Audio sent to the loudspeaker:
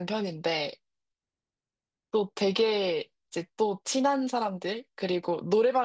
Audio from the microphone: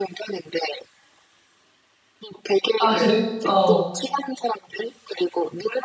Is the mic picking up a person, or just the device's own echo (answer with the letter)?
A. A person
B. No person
A